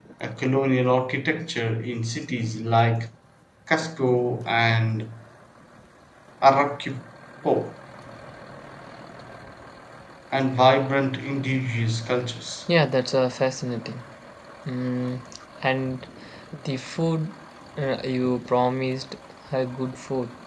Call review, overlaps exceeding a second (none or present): none